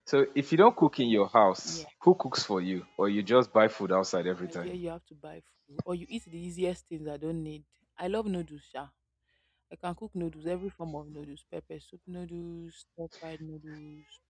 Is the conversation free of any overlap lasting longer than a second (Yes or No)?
Yes